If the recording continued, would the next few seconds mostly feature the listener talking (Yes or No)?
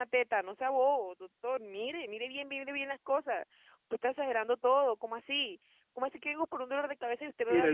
Yes